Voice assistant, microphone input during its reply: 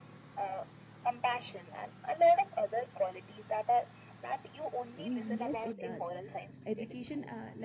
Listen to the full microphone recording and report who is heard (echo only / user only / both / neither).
both